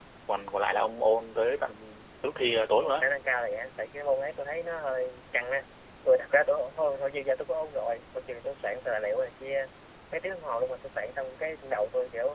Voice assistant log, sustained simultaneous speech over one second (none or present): none